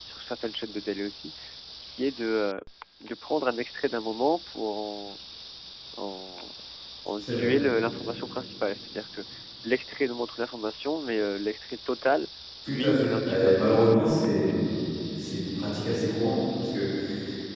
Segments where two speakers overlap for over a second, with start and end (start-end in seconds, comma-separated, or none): 12.7-14.3